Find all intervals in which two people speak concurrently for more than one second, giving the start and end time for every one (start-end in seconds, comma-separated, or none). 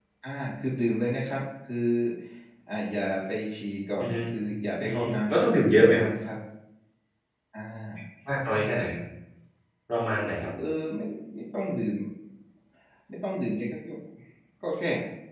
4.8-6.1